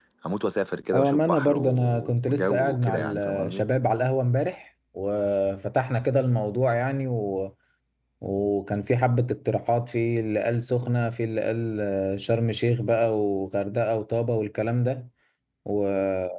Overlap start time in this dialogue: 1 s

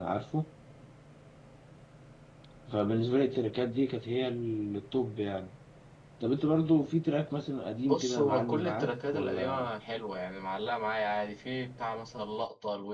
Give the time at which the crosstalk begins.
8 s

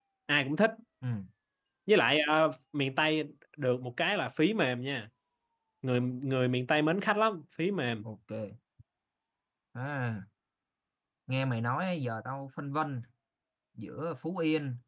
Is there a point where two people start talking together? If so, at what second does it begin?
none

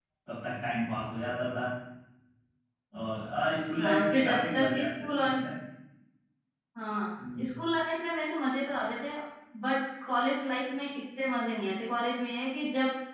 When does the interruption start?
4 s

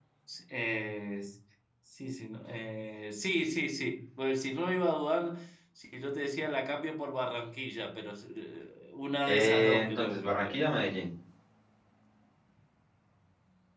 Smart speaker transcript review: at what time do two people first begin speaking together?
9 s

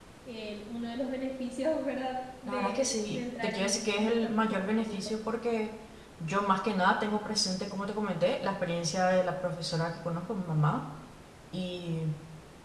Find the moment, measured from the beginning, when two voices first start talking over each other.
2 s

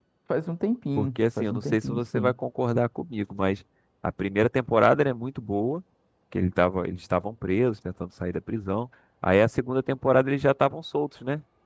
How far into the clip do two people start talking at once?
1 s

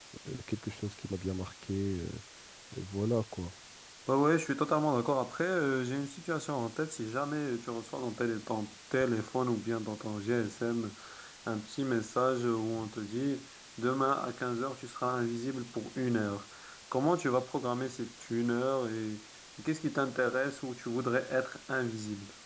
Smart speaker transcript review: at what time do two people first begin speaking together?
none

